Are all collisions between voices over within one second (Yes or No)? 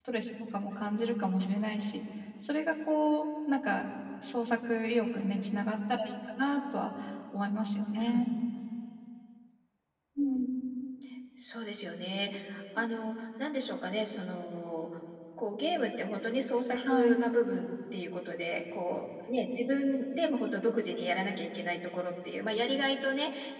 Yes